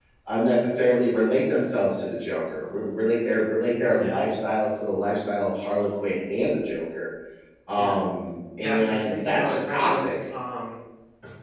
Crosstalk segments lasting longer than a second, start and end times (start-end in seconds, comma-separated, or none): 8.6-10.0